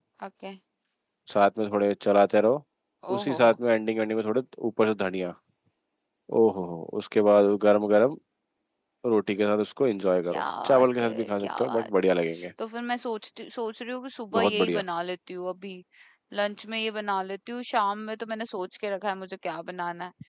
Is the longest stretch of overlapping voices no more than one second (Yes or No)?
No